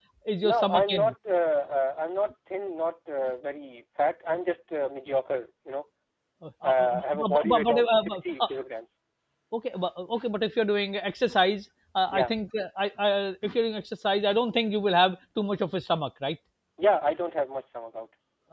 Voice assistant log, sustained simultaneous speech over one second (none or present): present